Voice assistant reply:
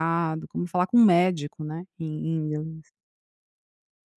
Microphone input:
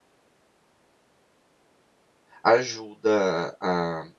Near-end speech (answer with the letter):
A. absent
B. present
B